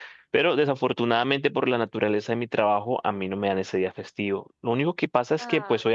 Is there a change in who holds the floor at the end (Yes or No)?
No